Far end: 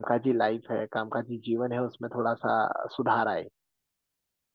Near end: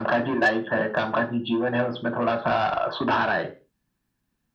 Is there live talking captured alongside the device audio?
No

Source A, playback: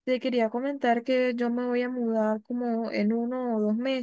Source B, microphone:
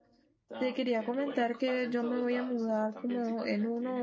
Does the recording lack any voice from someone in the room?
No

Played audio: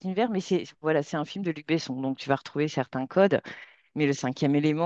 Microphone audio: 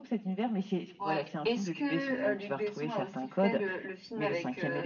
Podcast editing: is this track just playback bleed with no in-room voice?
No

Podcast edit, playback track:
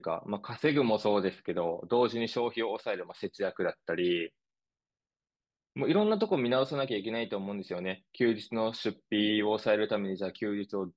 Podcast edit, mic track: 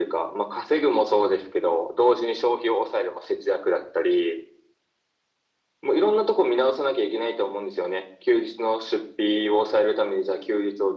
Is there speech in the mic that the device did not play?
No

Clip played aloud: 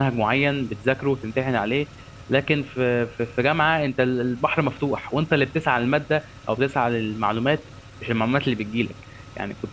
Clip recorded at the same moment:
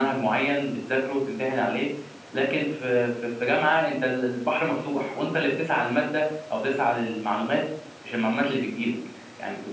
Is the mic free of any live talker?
Yes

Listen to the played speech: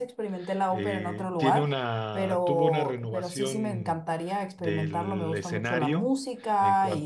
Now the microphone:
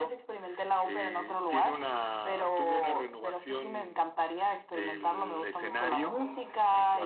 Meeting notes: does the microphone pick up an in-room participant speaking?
Yes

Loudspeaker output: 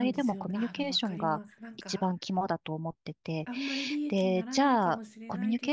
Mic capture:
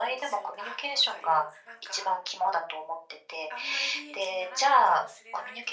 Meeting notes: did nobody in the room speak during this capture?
Yes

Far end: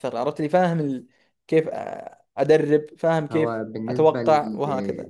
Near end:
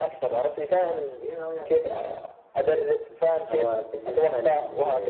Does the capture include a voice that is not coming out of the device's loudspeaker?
Yes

